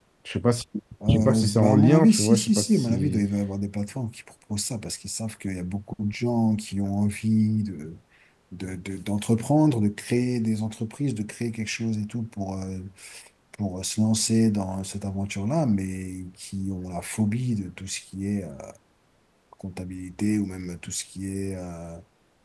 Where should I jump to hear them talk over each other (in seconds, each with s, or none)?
1.1 s